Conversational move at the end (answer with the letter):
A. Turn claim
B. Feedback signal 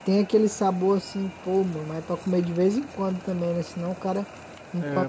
A